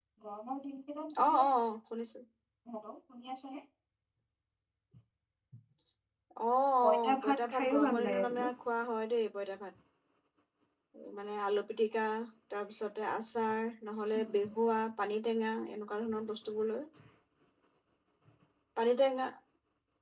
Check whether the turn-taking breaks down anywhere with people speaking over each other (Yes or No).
Yes